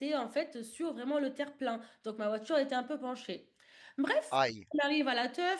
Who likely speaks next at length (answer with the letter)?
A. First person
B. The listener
A